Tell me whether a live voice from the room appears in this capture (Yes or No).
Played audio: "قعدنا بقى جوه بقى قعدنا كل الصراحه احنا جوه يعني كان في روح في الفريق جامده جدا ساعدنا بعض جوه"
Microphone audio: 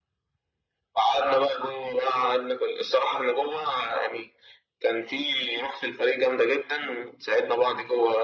No